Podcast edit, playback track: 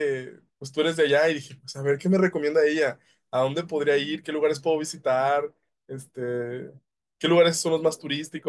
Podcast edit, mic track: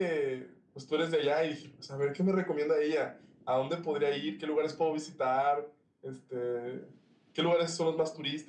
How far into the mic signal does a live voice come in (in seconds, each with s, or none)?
none